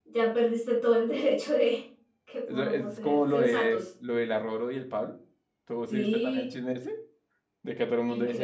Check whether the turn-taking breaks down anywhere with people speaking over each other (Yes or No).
Yes